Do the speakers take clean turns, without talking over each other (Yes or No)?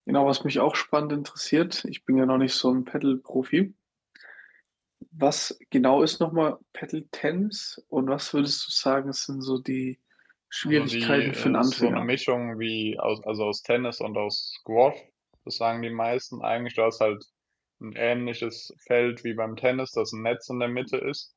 No